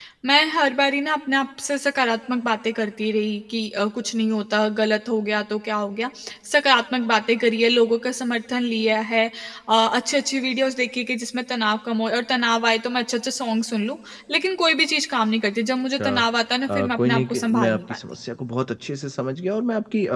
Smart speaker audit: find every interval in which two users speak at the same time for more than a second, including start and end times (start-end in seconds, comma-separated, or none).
16.7-18.0